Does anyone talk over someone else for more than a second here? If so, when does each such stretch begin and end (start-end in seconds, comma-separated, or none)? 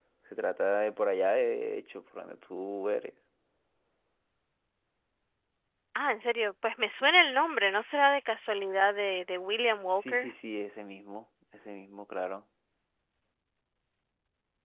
none